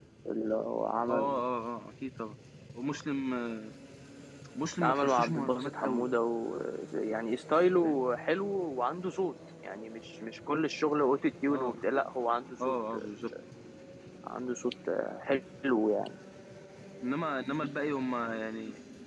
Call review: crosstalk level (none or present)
present